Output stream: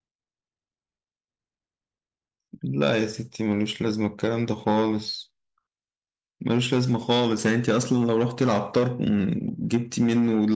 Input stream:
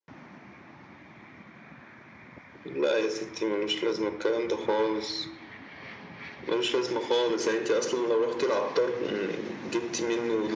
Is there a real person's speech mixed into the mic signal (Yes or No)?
No